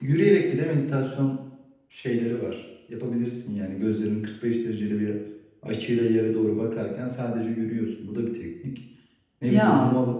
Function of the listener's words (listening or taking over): listening